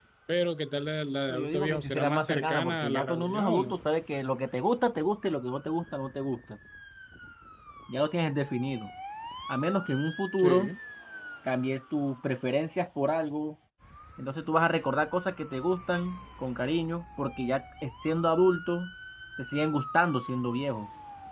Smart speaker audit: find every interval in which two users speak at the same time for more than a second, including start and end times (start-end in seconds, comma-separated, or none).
1.3-3.7